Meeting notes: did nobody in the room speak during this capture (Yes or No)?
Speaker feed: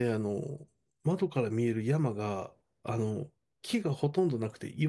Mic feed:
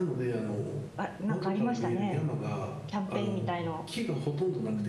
No